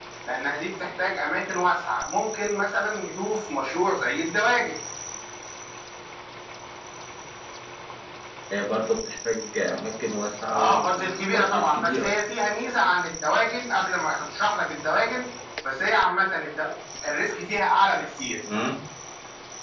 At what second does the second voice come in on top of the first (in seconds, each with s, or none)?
10.5 s